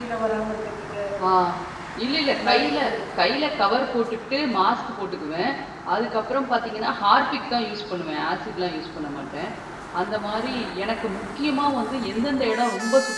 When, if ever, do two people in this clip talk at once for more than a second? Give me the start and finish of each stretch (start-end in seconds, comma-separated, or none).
none